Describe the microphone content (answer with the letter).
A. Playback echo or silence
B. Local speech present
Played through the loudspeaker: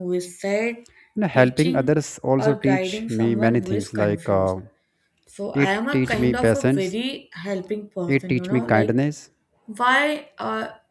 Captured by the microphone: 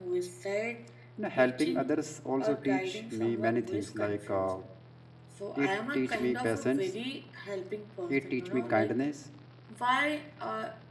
A